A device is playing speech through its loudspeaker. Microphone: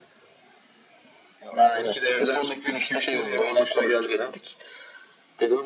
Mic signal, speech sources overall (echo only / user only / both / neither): echo only